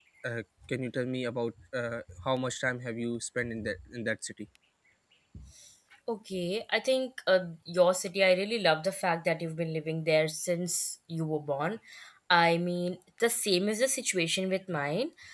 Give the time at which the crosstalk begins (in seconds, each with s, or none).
none